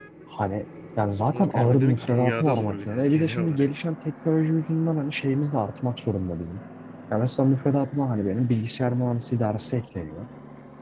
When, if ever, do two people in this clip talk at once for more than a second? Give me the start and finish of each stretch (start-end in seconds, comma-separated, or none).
1.3-3.7